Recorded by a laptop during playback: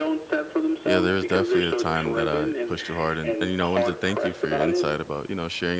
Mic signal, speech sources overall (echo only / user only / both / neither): both